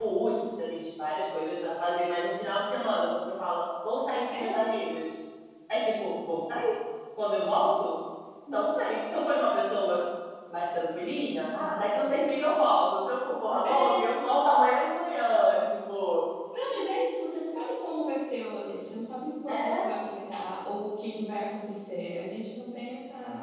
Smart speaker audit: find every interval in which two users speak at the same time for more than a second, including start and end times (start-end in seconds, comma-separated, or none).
none